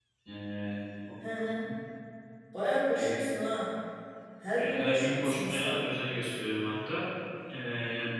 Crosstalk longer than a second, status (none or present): present